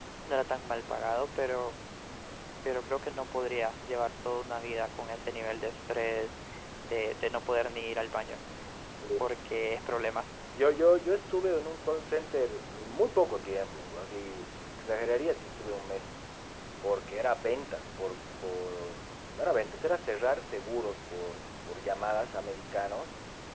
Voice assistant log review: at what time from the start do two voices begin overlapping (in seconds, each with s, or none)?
none